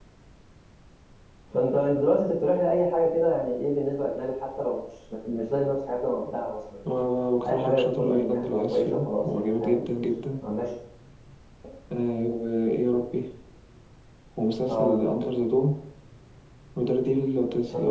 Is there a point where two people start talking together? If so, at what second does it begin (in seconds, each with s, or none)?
7.5 s